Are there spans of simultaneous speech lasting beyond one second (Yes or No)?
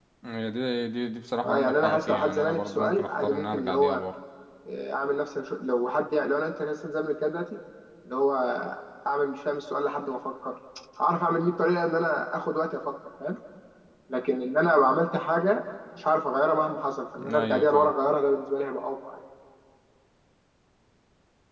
Yes